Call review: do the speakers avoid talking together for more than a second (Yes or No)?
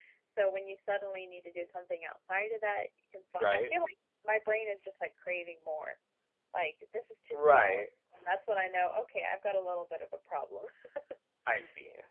Yes